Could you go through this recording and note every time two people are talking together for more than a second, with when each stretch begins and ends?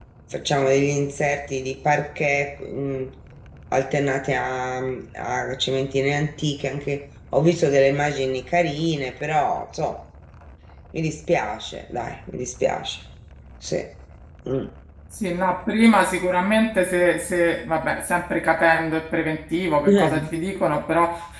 none

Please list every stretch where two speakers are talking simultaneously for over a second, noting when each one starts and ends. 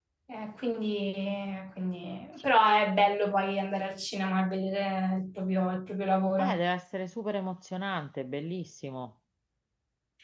none

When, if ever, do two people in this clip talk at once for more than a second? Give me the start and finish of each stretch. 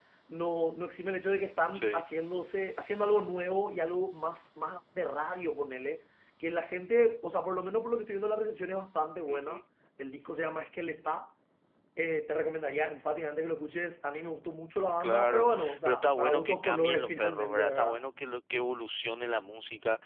15.0-18.0

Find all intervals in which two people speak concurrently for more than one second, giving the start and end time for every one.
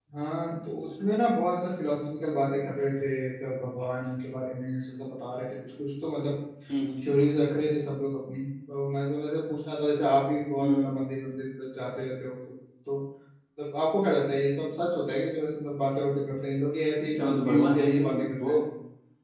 17.1-18.5

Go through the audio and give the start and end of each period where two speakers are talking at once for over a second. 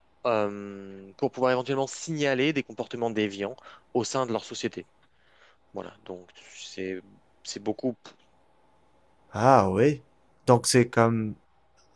none

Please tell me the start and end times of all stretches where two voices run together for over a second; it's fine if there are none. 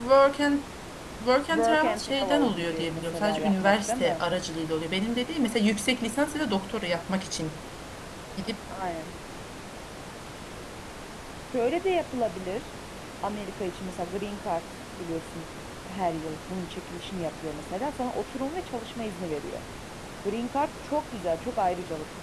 1.5-4.2

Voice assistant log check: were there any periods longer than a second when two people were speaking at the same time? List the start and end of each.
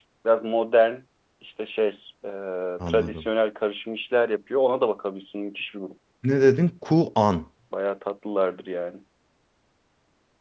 none

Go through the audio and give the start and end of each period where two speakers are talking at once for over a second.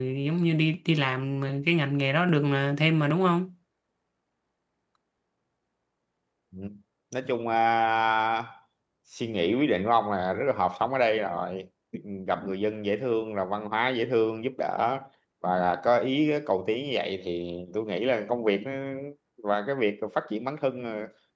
none

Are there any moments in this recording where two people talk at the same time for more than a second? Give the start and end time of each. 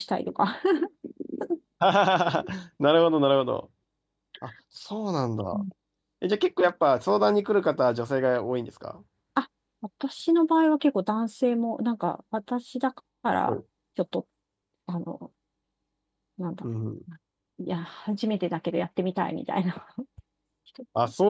none

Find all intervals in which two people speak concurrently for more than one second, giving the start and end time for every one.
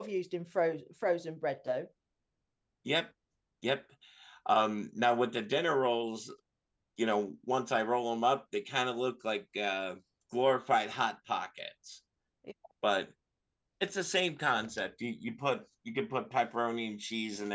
none

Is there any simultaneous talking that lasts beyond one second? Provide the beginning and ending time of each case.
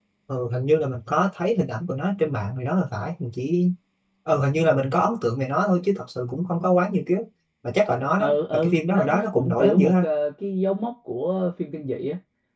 8.2-10.1

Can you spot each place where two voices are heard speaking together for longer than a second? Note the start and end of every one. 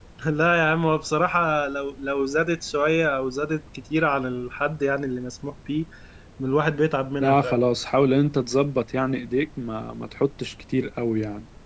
none

